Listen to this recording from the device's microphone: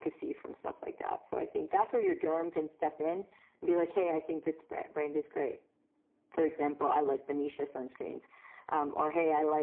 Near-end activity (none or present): none